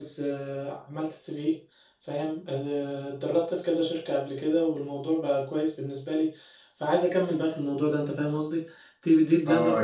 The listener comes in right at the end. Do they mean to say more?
Yes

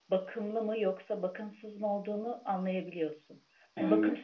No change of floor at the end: Yes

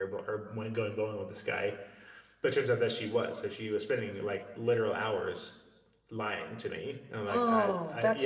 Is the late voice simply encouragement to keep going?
No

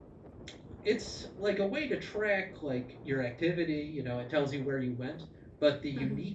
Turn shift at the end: No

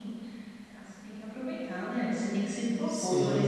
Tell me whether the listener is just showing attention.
Yes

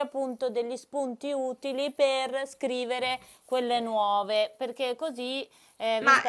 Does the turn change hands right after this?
Yes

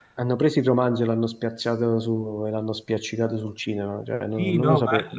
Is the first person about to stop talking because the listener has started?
Yes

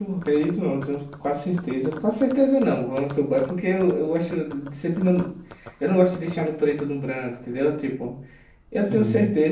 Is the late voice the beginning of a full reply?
No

